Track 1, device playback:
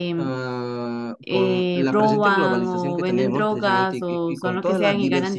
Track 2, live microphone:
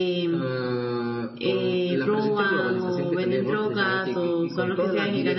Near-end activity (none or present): none